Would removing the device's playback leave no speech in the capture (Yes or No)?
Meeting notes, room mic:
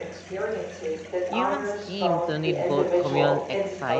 No